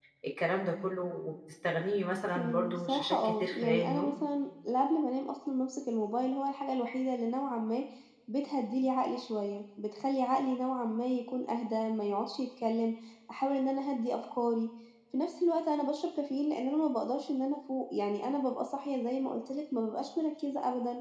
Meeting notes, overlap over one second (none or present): present